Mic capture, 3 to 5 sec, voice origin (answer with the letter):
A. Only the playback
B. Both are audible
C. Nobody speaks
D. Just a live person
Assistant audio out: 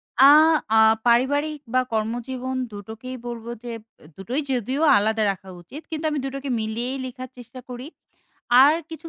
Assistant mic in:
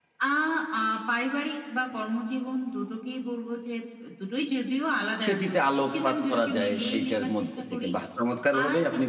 A